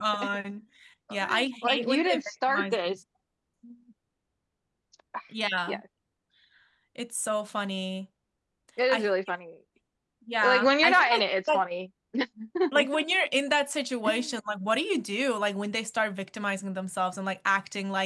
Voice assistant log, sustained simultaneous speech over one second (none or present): present